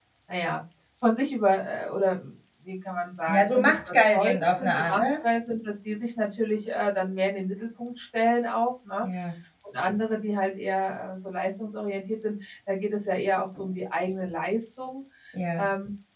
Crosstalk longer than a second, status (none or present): present